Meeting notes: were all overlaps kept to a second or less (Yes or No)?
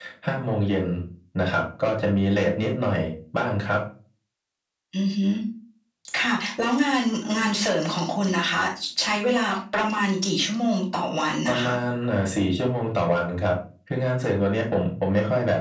Yes